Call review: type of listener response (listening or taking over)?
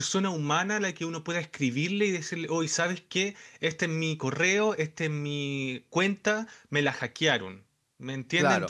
taking over